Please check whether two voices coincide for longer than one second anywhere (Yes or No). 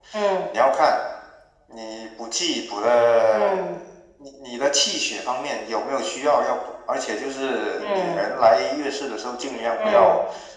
No